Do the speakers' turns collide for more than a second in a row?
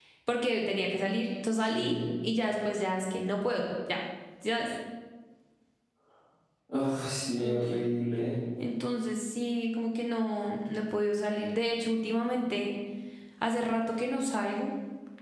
No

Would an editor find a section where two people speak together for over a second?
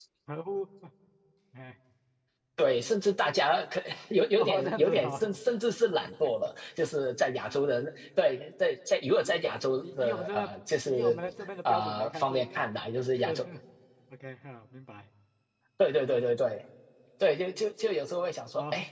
Yes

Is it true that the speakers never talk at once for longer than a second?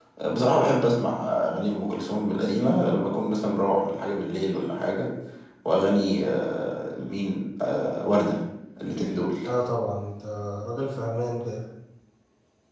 Yes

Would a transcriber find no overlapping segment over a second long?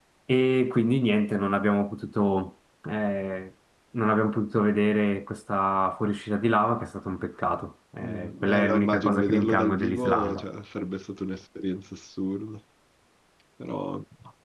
No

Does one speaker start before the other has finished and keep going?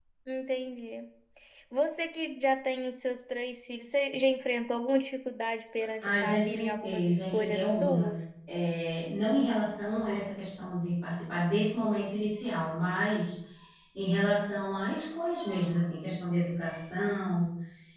Yes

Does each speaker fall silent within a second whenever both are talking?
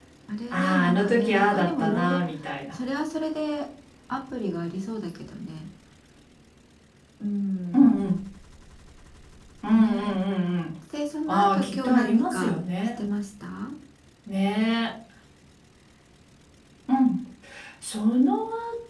No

